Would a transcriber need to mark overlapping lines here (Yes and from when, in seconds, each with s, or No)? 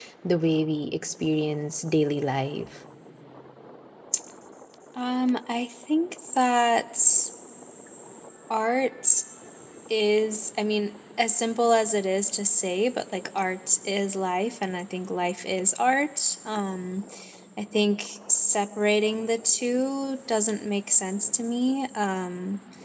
No